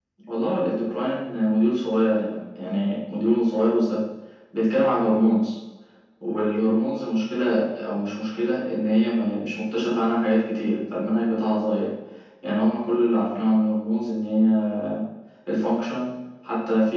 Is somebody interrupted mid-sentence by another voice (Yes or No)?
No